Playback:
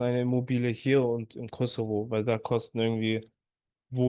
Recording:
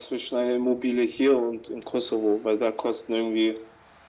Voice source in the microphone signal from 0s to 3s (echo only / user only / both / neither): echo only